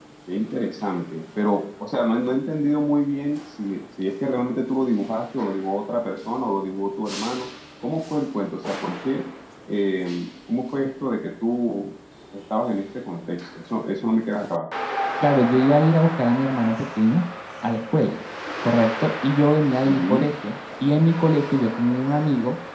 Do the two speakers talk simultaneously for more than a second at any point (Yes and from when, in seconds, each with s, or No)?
No